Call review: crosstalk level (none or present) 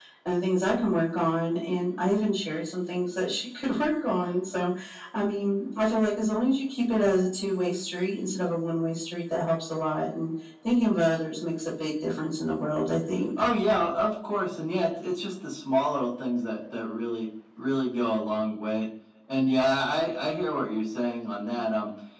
none